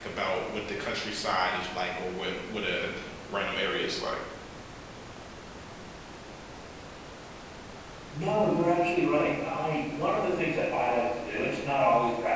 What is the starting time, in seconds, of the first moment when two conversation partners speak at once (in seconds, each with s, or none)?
none